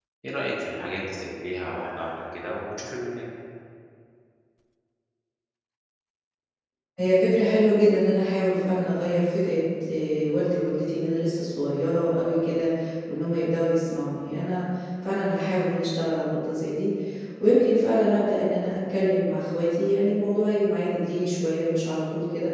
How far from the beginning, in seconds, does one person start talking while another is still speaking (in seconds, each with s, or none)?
none